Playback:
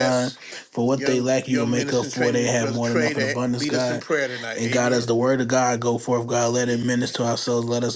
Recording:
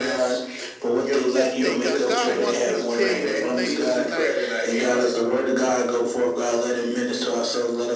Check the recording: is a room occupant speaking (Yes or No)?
Yes